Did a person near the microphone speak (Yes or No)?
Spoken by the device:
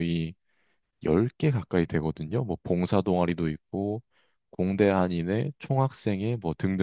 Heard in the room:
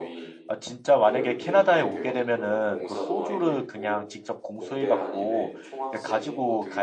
Yes